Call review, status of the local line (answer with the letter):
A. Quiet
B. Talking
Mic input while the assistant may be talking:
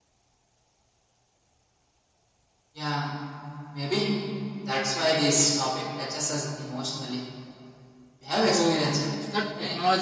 B